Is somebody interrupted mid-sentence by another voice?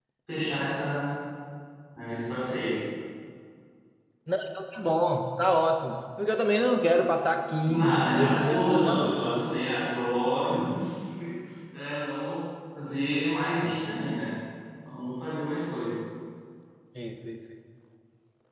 Yes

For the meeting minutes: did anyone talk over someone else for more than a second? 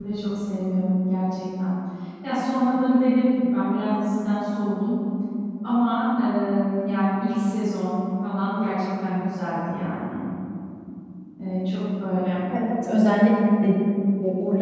No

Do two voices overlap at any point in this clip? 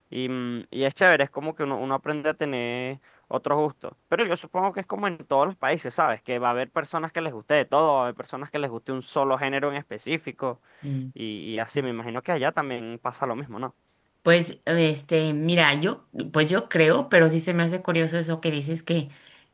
No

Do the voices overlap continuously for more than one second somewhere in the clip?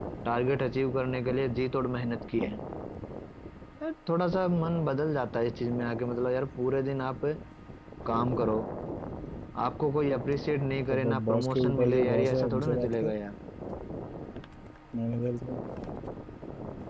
Yes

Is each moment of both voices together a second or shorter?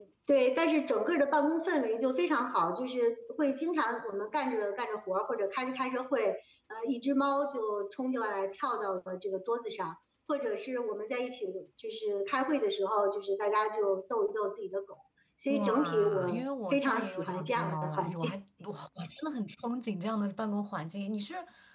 No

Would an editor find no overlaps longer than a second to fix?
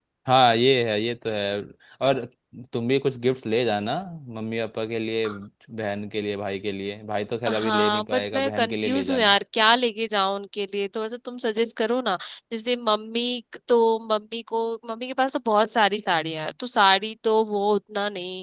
No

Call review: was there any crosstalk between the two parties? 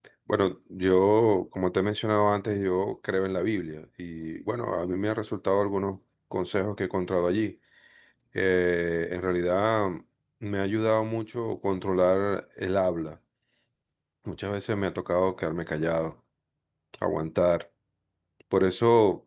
No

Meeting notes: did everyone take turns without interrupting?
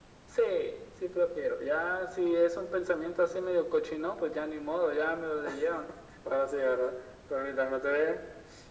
Yes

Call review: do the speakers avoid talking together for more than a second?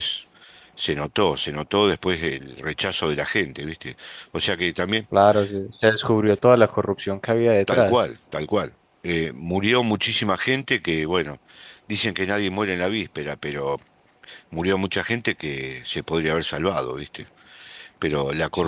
Yes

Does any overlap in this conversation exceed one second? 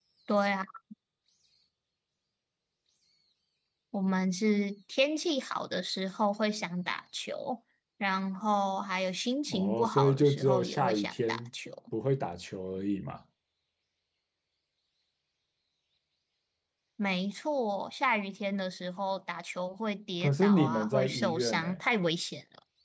Yes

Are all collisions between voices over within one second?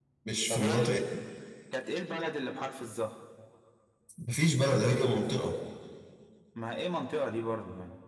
Yes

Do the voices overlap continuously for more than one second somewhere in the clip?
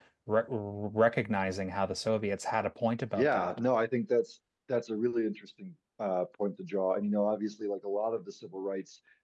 No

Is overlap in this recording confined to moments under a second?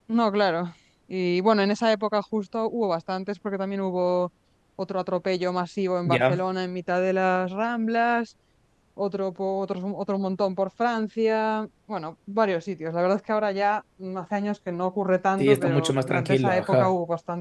No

